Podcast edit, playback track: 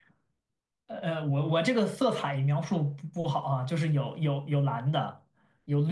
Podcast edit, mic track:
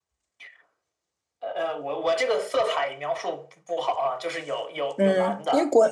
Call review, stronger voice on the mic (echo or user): user